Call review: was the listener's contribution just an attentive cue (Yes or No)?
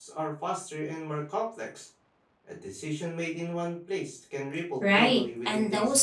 No